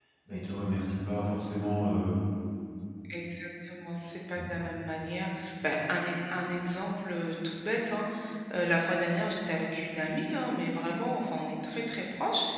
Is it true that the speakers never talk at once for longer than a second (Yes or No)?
Yes